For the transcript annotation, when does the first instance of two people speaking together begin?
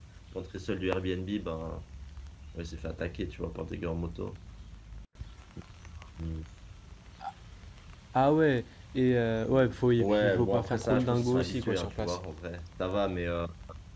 10.0 s

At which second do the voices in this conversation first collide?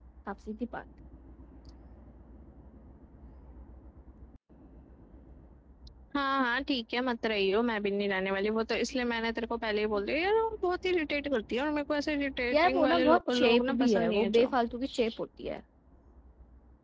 12.5 s

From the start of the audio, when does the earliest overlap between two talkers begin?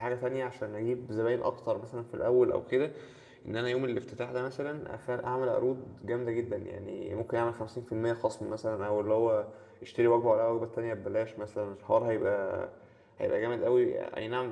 none

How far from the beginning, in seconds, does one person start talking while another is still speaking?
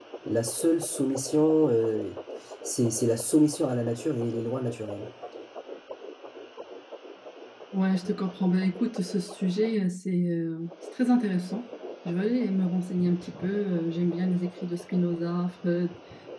none

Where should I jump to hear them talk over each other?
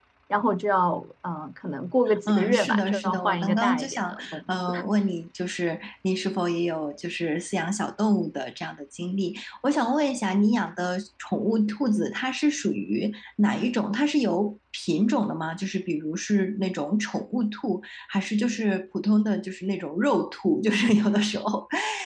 2.1 s

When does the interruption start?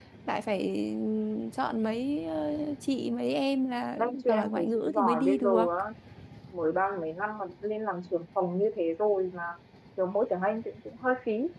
4.0 s

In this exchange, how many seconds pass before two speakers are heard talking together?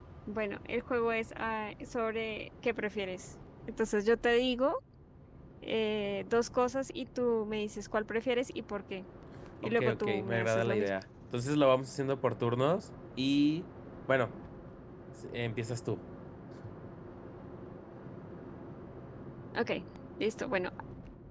9.6 s

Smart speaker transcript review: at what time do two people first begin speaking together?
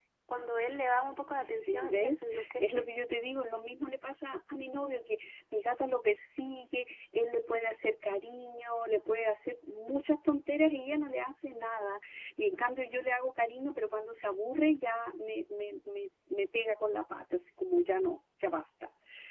1.4 s

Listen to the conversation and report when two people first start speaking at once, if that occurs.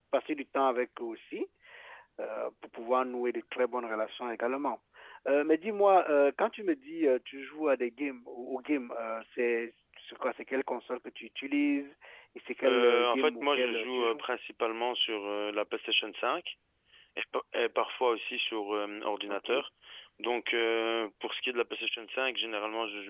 12.7 s

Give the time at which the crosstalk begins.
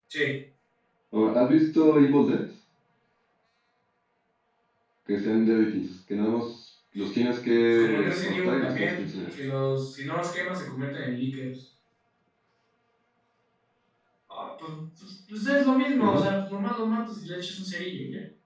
7.7 s

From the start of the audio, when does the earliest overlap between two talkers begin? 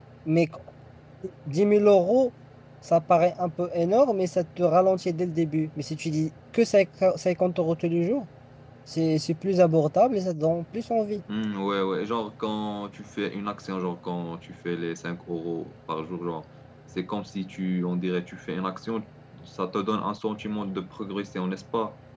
none

